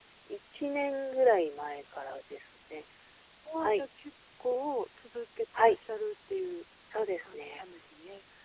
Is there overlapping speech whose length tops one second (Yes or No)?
No